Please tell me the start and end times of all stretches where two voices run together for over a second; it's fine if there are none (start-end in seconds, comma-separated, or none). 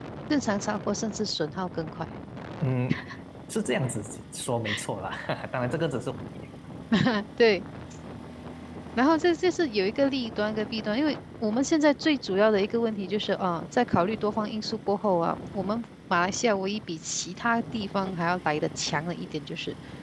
none